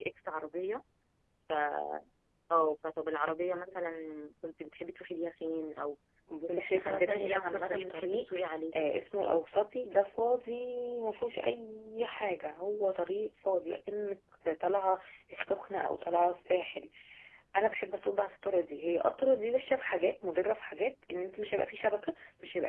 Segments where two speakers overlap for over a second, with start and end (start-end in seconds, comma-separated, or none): 6.5-8.3